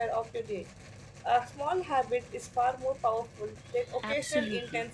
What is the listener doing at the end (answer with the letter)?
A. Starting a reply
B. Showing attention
A